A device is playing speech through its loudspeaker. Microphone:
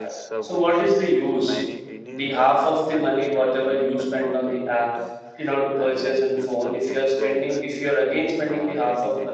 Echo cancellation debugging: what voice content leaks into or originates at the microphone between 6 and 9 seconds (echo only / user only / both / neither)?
both